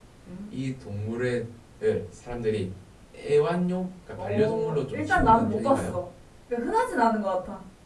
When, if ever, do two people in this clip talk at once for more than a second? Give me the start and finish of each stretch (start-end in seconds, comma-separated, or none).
4.2-6.0